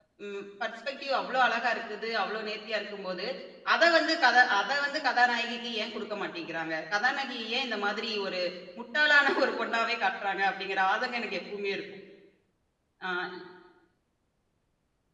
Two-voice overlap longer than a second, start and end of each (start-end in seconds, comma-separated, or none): none